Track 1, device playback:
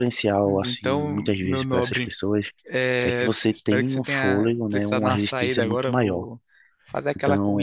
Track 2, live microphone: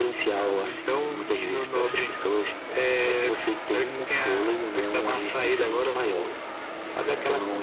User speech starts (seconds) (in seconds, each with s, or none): none